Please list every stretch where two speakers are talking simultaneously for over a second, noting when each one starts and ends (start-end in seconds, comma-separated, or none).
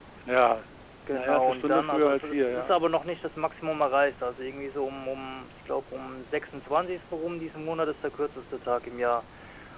1.1-2.8